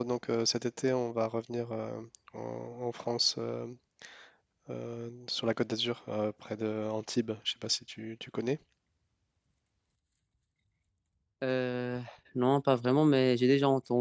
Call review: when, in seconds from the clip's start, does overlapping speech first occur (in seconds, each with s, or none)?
none